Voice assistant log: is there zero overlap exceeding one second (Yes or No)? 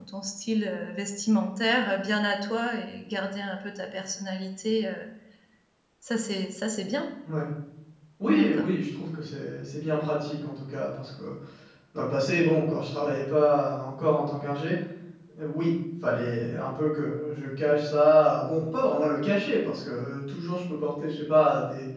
Yes